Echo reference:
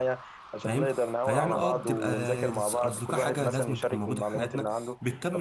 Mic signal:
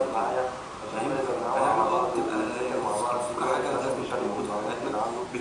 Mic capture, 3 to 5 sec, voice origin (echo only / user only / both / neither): echo only